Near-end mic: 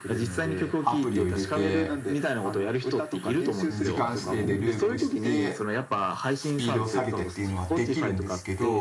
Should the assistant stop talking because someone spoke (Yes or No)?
Yes